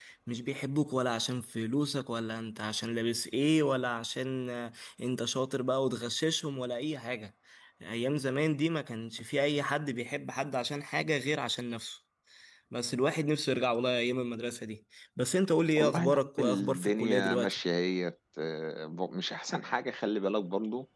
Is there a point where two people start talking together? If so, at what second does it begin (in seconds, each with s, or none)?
15.8 s